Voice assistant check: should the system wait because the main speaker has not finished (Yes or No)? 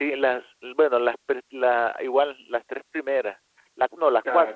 Yes